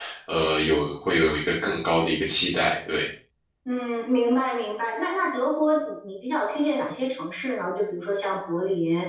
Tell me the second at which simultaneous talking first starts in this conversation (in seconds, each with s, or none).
none